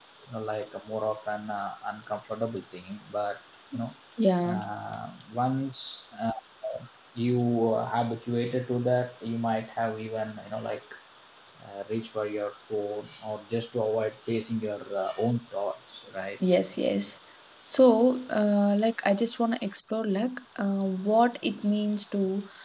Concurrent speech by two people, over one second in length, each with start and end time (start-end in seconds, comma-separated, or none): none